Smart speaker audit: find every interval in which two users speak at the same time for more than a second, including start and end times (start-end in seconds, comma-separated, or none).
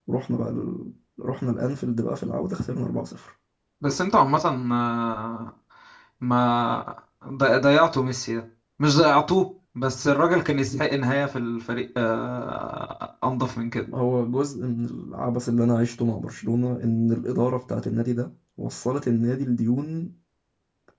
none